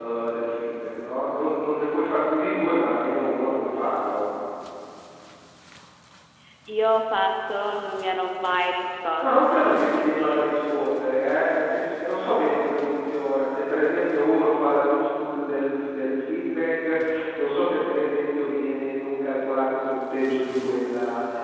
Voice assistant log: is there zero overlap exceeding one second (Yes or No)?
No